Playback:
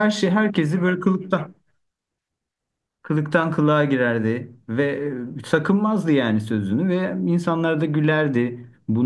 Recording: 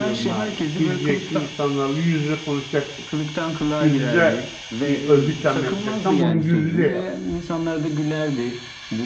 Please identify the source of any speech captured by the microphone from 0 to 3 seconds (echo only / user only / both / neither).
both